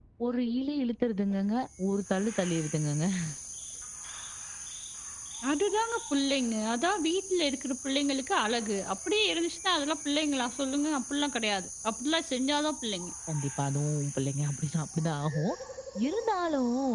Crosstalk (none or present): none